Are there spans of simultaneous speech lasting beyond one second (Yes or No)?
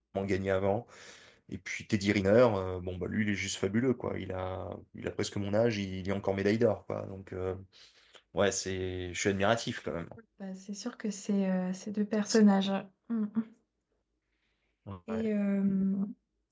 No